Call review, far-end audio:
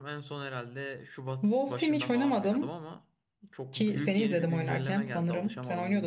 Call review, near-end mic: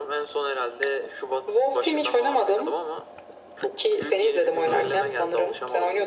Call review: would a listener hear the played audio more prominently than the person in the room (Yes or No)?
Yes